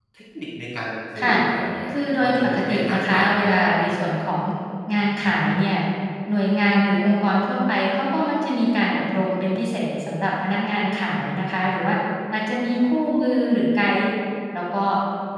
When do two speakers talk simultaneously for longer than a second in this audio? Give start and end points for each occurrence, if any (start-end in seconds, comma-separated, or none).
1.9-3.7